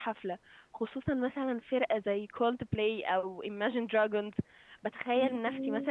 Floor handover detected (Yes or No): No